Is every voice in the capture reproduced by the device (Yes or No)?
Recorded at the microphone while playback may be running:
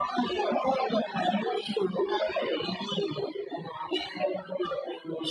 Yes